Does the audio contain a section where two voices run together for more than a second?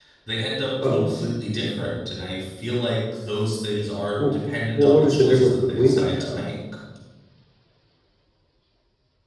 Yes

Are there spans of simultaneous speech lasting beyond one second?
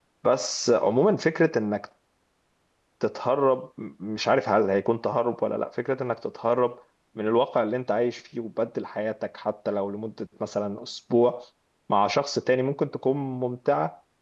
No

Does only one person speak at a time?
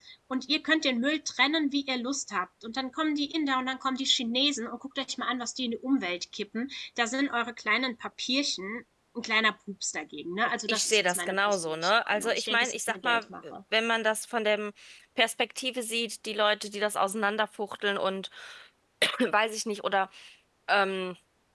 No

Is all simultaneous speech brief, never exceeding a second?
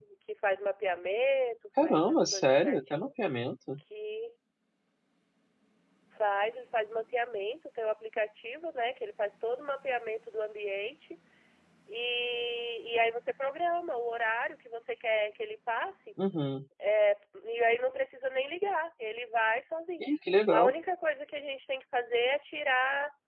No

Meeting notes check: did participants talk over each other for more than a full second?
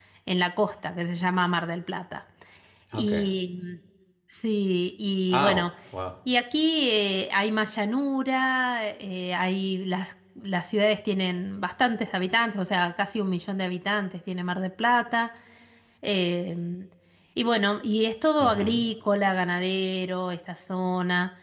No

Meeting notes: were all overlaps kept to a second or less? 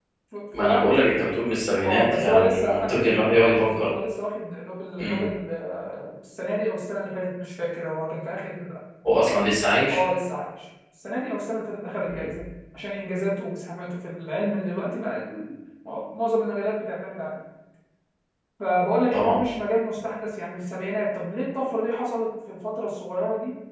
No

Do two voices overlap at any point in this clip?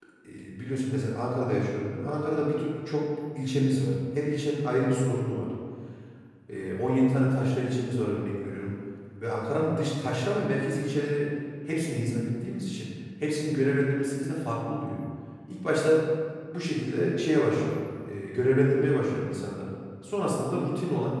No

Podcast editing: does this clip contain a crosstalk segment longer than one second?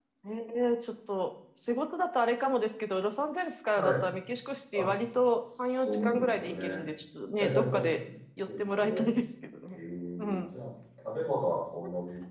Yes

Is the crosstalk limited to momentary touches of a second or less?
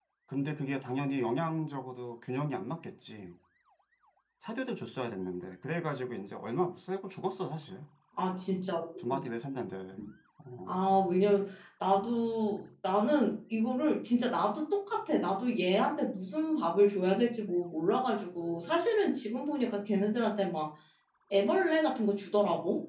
Yes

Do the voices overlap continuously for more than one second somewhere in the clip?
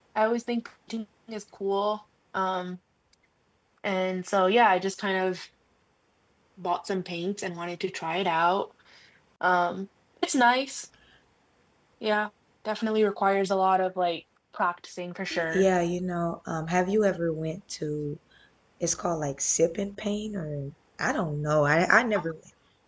No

